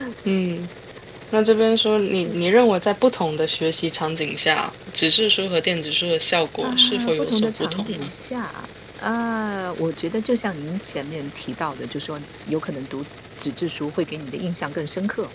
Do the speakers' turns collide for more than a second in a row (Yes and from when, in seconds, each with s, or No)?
Yes, from 6.6 s